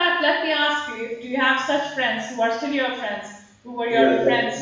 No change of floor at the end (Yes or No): No